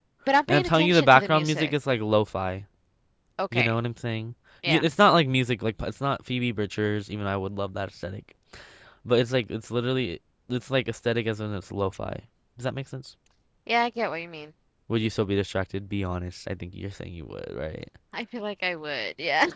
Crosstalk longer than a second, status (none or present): present